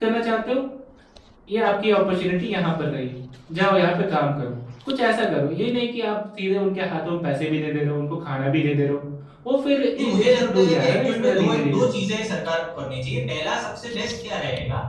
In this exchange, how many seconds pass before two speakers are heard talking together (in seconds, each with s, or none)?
10.0 s